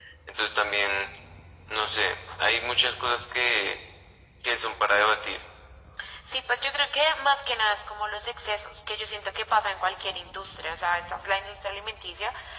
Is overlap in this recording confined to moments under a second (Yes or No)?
Yes